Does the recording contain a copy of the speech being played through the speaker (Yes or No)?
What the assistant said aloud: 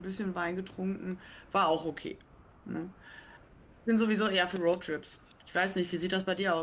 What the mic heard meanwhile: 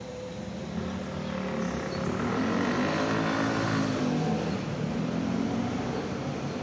No